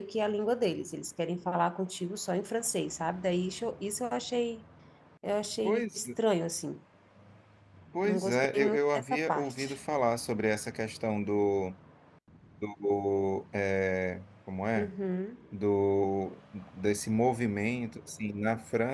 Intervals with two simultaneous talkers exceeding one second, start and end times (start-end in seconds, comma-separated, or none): 8.0-9.7